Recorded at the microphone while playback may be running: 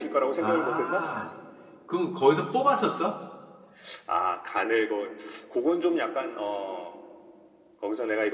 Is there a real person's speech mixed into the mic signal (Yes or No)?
Yes